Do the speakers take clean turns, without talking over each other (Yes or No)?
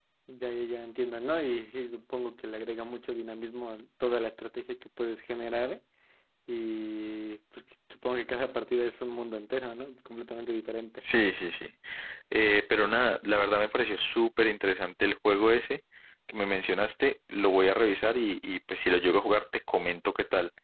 Yes